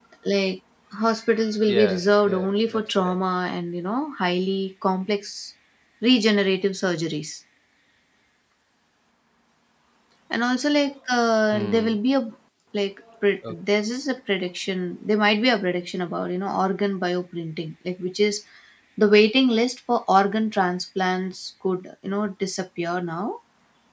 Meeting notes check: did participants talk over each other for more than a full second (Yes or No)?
Yes